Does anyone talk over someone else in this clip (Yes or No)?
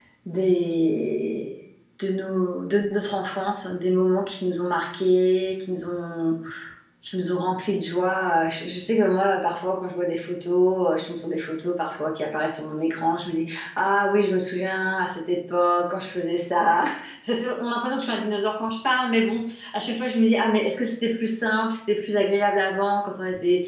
No